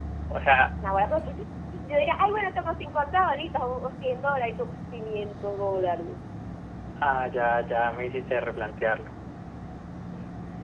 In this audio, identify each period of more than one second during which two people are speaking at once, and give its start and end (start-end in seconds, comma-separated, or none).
none